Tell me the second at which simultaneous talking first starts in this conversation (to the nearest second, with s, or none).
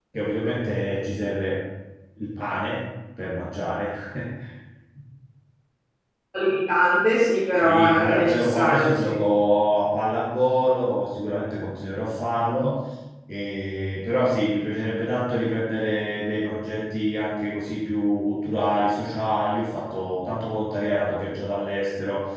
8 s